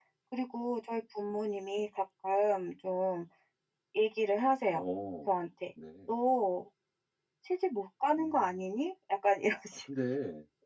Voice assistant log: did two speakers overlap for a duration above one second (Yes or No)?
No